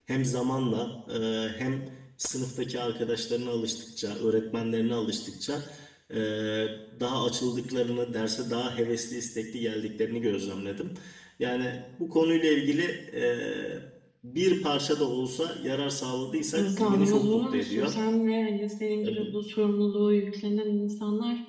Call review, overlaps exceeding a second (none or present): present